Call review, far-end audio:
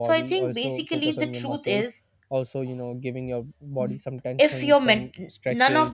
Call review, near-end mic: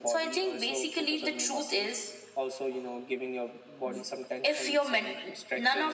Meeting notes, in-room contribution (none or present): none